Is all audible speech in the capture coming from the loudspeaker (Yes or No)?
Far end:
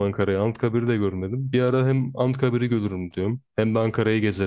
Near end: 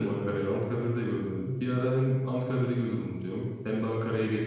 Yes